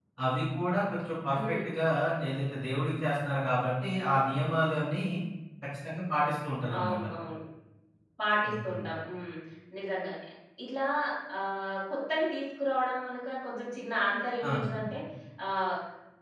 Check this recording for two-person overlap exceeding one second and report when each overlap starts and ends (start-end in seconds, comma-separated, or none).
none